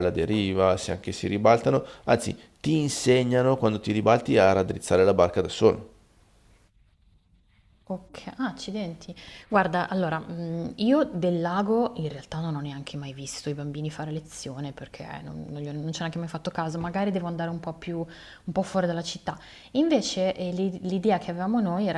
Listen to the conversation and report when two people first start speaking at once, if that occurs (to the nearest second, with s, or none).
none